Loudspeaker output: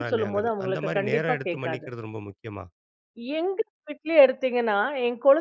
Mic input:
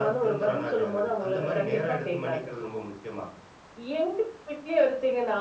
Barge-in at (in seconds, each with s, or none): none